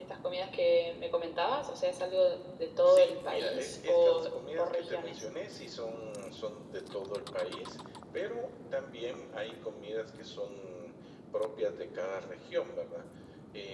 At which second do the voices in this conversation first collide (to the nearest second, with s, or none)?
3 s